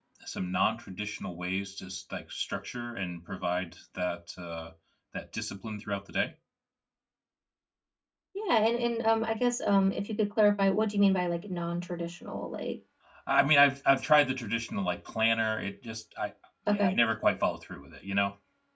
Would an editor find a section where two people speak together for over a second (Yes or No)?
No